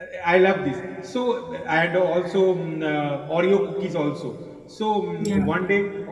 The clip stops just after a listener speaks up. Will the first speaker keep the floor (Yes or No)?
Yes